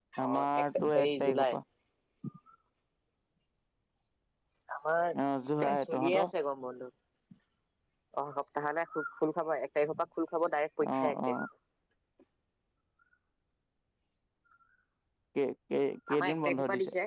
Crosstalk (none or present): present